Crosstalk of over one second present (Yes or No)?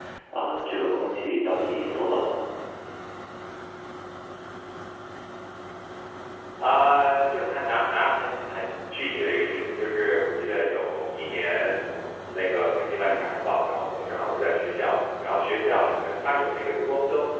No